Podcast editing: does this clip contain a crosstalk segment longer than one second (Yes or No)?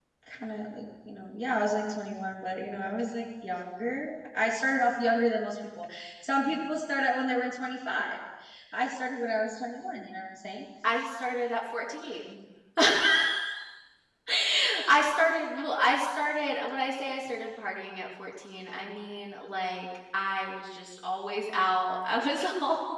No